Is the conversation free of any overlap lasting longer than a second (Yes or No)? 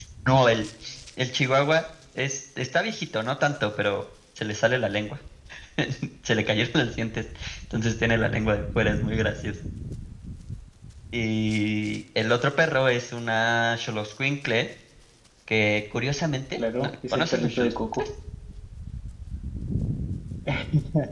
No